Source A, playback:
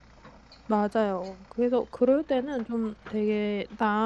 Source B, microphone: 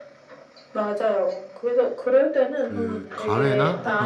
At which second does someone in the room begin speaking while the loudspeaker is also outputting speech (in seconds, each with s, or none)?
2.7 s